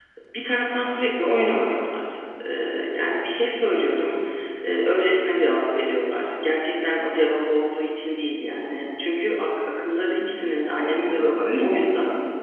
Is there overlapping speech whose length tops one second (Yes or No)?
Yes